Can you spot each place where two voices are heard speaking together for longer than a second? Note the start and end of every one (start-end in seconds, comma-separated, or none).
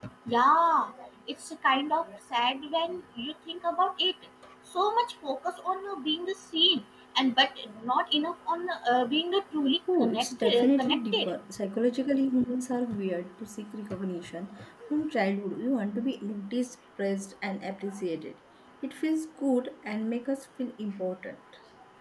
10.0-11.3